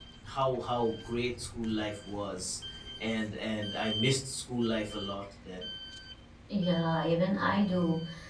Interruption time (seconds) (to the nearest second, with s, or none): none